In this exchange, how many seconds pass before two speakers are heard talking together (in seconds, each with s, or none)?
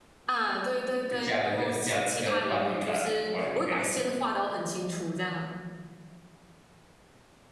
1.1 s